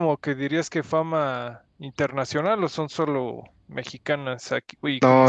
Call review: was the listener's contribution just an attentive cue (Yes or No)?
No